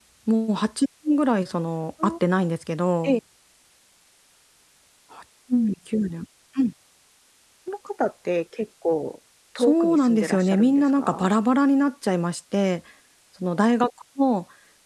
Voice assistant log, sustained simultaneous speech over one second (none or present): present